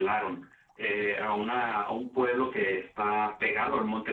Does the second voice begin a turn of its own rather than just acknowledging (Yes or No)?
No